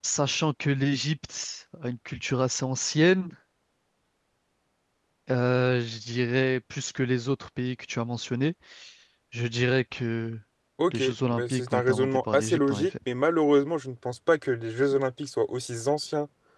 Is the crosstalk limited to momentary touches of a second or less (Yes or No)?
No